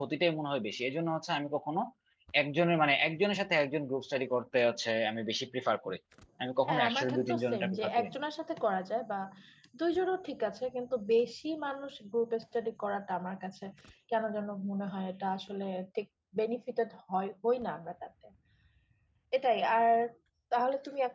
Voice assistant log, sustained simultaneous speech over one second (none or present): present